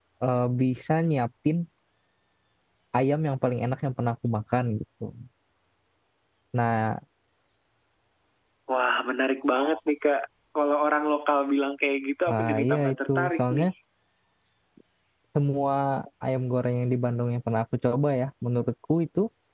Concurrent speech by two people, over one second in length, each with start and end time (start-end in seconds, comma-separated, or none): 12.3-13.6